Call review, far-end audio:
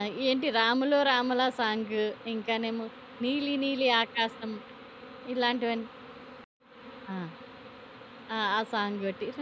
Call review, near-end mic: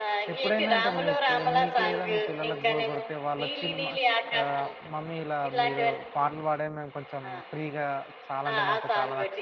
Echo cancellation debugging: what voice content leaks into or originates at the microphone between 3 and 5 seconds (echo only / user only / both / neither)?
both